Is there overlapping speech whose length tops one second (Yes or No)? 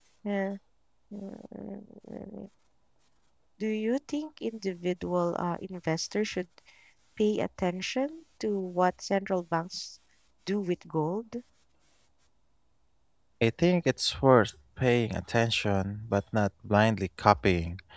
No